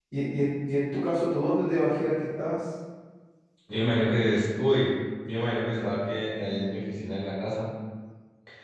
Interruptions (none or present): none